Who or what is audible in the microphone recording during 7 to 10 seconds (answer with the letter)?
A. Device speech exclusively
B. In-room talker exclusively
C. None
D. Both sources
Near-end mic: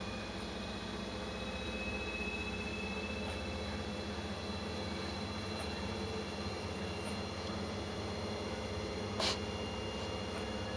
C